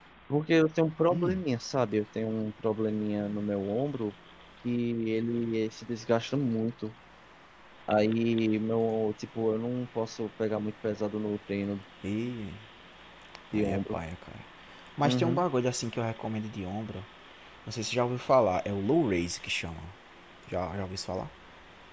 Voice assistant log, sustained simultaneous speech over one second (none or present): none